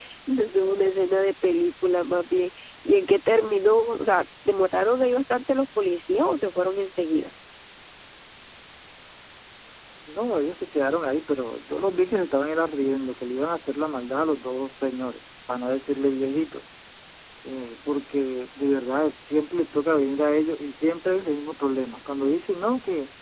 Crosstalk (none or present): none